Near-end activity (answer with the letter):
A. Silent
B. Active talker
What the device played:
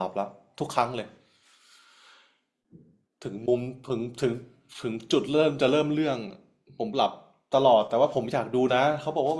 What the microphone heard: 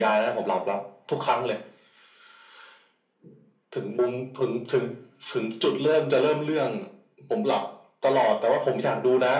A